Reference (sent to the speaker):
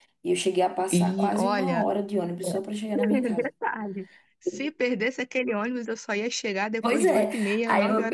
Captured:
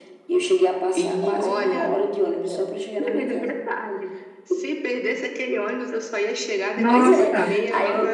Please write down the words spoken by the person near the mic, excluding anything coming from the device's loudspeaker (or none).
Nossa.